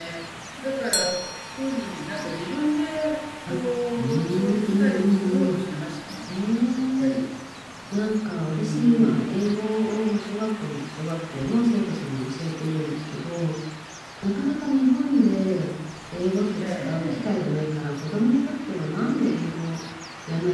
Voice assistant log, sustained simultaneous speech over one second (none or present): present